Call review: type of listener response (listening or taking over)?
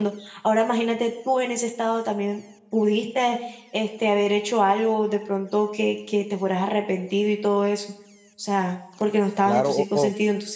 taking over